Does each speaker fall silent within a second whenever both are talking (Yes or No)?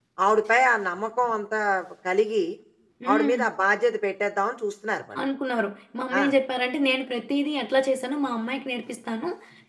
Yes